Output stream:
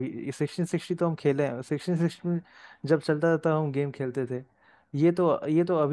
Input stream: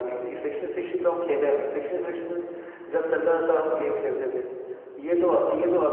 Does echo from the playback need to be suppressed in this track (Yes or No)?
Yes